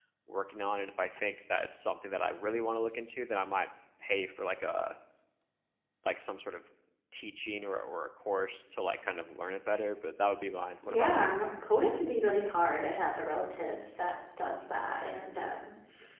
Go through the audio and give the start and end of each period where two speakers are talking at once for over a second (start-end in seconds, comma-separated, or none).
none